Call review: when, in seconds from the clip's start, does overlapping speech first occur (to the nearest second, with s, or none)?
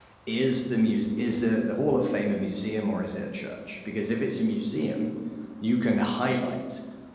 none